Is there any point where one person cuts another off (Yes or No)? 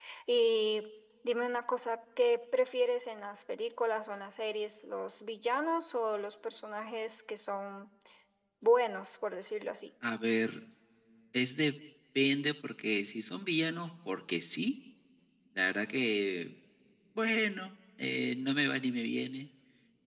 No